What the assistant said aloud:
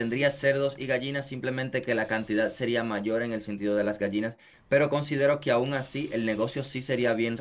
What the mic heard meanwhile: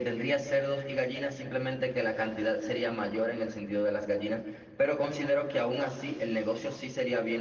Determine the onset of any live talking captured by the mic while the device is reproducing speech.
none

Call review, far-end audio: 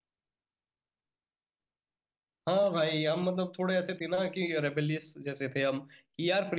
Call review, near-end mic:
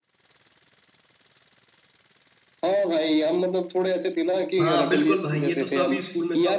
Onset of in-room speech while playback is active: 4.6 s

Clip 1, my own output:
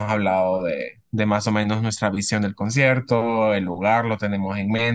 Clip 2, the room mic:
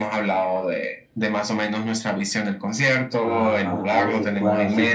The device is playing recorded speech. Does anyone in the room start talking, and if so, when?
3.2 s

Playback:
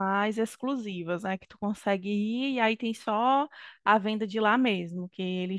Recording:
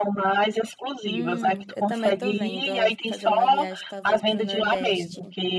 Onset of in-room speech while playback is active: 1.1 s

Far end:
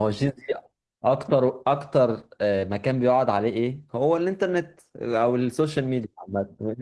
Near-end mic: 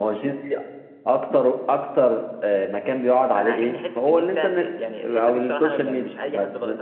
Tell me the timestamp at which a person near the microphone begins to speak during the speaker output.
3.4 s

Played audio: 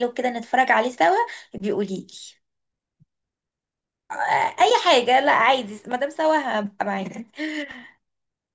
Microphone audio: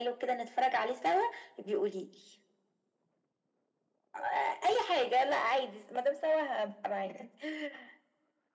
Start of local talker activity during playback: none

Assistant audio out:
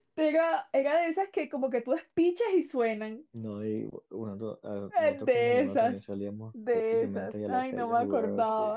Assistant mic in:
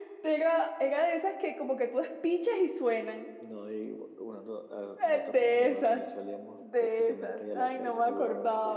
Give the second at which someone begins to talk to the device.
none

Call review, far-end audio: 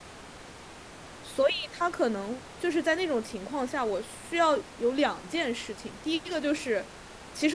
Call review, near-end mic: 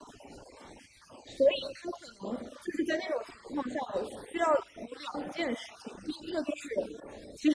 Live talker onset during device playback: none

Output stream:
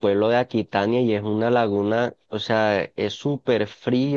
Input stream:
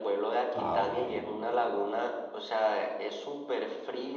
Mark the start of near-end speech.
0.5 s

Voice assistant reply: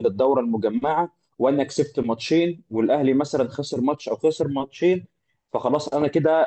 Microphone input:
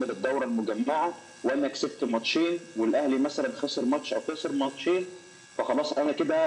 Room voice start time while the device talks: none

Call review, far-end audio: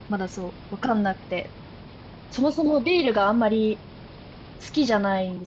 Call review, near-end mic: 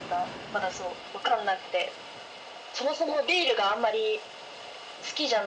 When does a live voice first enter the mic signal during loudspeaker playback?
none

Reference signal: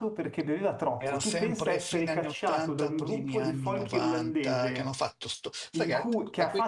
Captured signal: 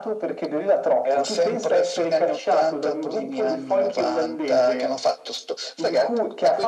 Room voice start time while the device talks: none

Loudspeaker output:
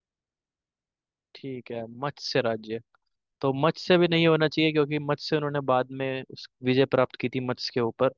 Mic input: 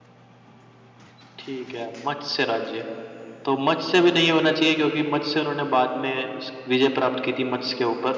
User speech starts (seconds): none

